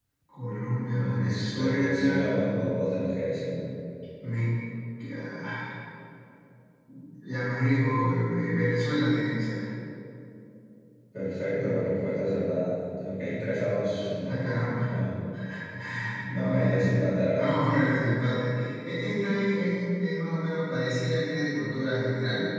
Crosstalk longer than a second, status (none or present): present